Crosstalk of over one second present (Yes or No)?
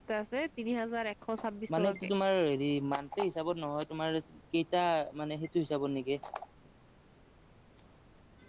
No